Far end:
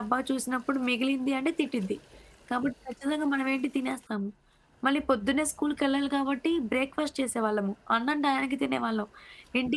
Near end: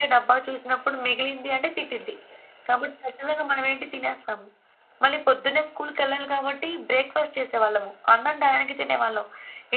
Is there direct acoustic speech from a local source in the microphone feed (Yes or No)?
No